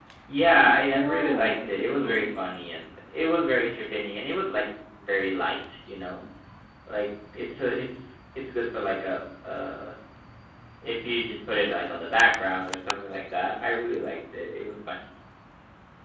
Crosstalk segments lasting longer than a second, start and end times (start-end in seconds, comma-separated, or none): 0.9-2.4